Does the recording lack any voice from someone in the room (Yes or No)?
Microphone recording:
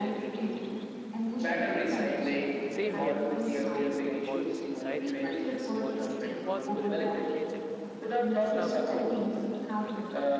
No